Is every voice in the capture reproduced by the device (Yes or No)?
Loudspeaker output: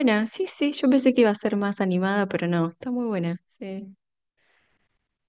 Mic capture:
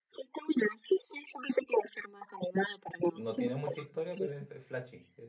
No